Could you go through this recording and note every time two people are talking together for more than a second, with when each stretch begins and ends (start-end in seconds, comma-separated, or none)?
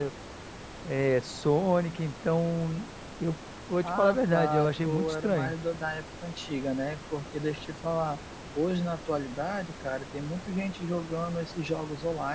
3.8-5.5